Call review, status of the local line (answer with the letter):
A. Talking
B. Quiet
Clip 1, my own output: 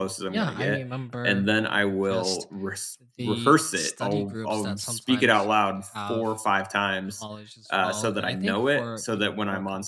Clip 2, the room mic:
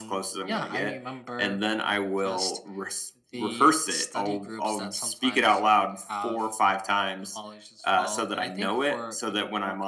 B